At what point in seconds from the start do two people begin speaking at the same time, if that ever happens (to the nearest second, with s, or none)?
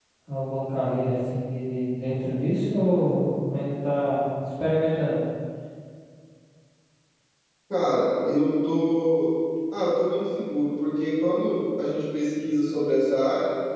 none